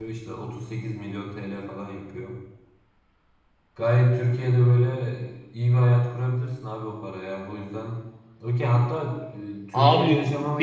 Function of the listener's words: taking over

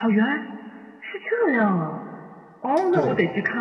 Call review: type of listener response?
listening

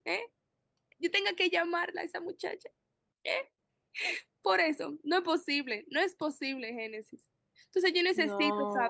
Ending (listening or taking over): listening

